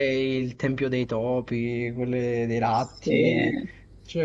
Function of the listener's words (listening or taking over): listening